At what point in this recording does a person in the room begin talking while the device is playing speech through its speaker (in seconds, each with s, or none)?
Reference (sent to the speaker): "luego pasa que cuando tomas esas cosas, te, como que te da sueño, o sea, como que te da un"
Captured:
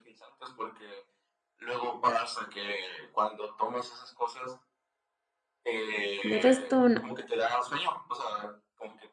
6.2 s